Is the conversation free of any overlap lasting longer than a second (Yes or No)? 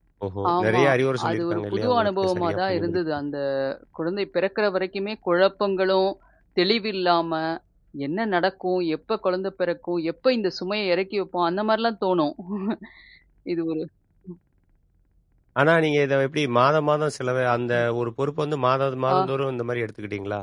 No